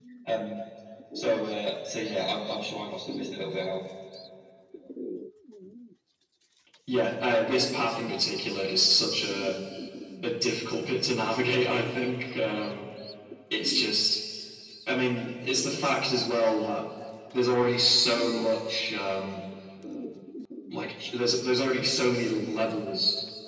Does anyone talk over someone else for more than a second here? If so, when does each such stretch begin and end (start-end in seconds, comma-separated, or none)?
none